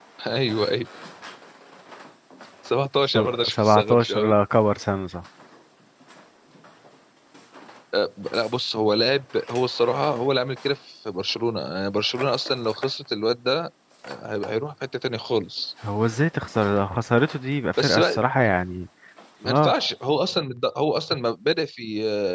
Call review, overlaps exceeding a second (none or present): present